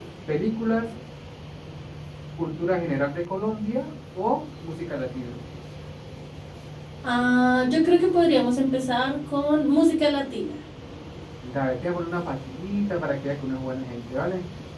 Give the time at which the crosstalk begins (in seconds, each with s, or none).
none